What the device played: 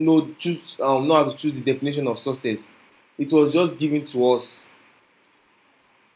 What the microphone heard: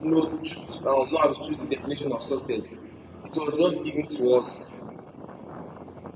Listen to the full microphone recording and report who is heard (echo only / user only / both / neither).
echo only